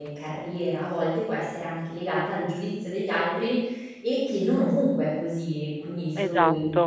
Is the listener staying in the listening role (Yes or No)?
Yes